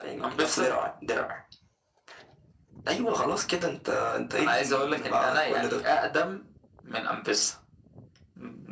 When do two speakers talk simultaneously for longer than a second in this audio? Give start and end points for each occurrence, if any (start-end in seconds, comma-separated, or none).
4.4-5.8